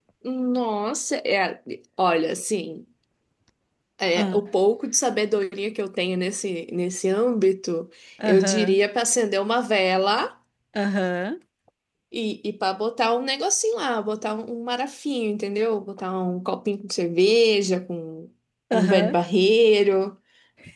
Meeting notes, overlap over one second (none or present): none